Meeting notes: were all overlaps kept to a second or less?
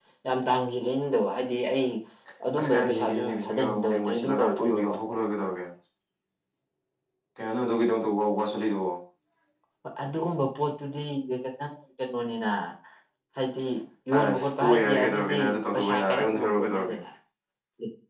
No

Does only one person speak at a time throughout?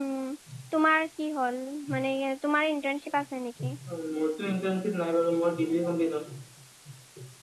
Yes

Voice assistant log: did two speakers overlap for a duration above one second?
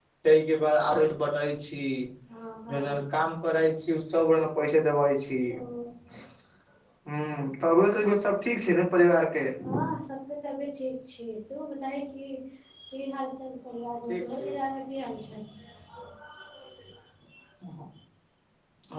No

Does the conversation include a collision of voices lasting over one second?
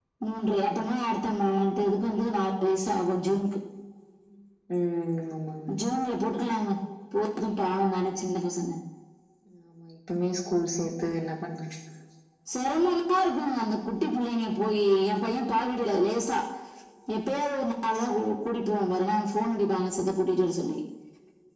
No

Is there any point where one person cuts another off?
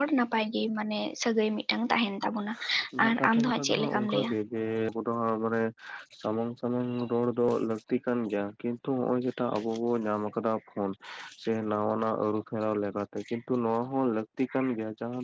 Yes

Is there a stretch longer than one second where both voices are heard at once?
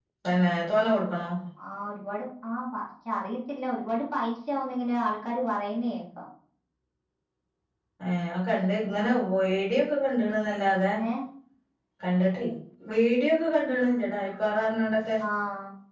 No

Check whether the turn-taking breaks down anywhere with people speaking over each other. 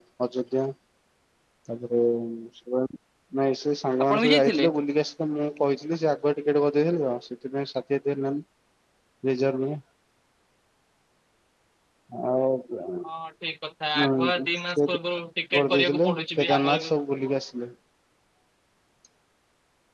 Yes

